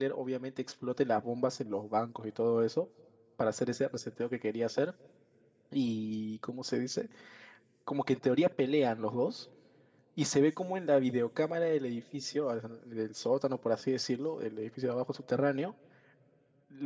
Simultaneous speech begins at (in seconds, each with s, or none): none